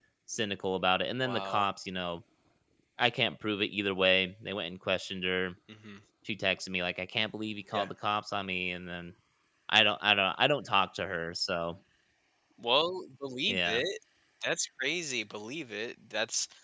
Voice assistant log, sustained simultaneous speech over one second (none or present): none